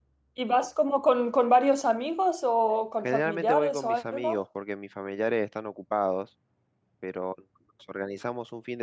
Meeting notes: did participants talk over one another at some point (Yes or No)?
Yes